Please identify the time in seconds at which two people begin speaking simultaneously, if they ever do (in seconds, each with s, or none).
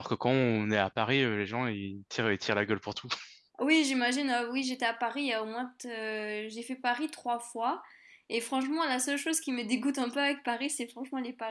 none